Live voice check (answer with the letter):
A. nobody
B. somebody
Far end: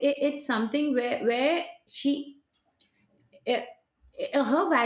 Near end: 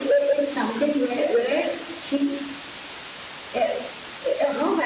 A